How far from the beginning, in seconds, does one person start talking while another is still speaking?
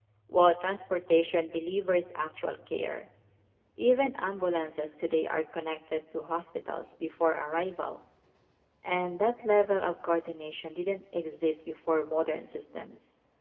none

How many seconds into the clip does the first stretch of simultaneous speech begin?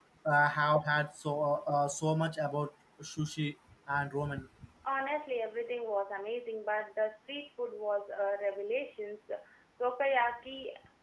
none

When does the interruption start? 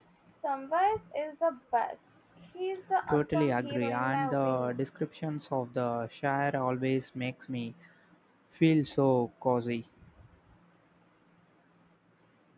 3 s

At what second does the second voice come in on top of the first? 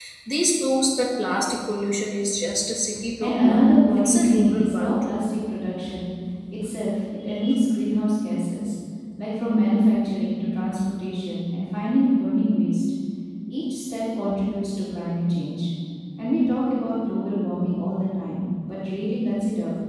3 s

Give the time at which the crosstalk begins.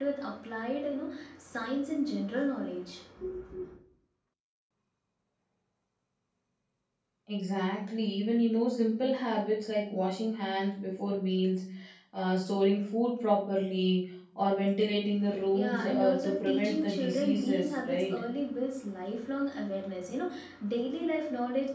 16 s

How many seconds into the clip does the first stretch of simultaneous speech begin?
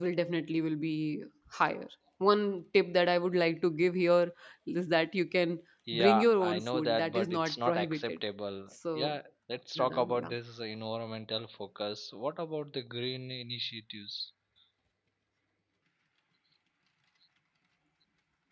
6 s

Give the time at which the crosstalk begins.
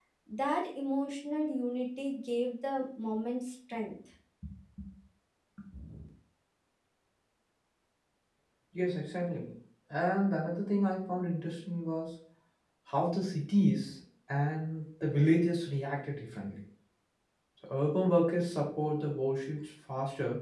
none

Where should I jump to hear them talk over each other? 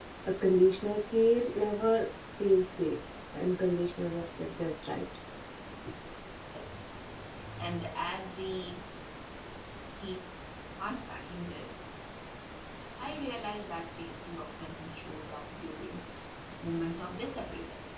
none

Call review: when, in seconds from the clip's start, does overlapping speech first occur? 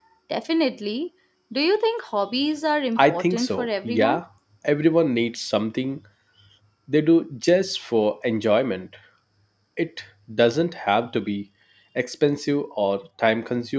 3 s

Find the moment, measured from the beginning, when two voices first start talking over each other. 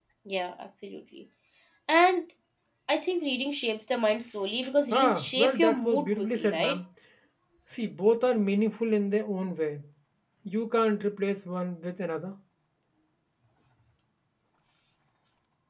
5 s

